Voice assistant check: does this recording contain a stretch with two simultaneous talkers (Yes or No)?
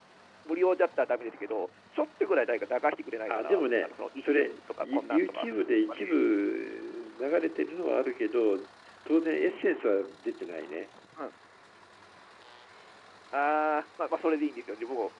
Yes